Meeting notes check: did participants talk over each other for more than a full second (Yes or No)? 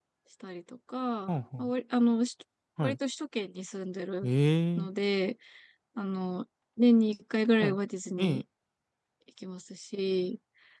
No